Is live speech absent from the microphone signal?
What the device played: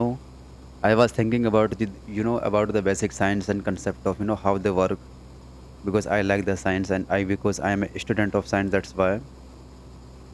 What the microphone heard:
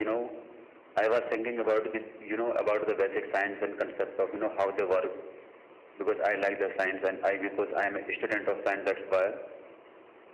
Yes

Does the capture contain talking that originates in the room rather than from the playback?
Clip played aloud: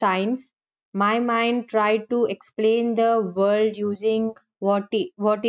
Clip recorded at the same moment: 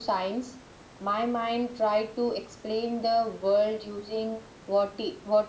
No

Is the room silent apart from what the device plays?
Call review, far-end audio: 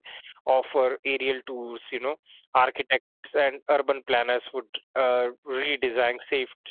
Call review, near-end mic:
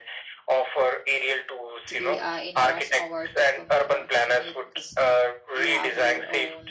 No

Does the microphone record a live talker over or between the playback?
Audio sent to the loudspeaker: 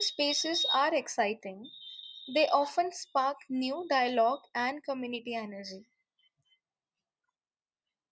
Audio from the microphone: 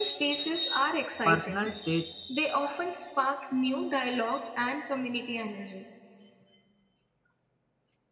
Yes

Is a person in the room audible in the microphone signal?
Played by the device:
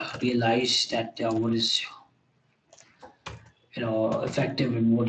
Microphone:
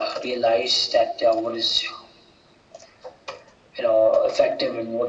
No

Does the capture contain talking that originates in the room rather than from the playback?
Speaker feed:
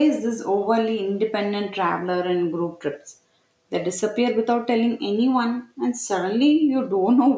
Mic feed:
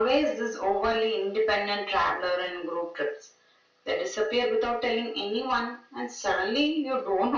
No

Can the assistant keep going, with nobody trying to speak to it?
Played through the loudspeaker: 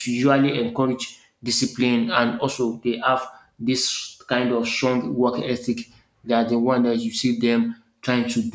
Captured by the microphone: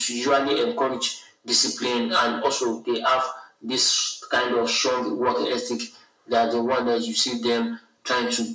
Yes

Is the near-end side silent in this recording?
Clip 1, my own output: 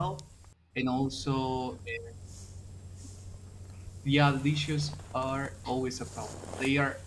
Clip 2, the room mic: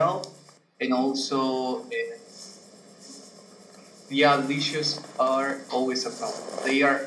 Yes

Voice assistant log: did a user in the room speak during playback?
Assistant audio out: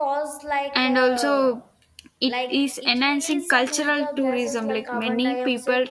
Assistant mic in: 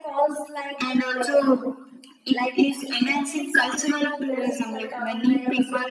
No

